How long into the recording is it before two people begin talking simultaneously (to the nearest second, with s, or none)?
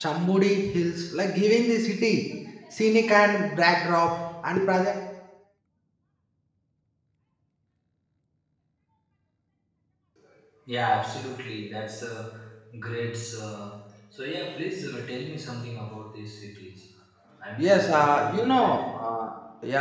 18 s